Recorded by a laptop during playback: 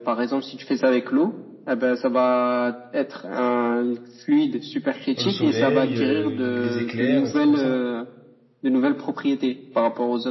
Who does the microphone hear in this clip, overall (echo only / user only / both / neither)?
both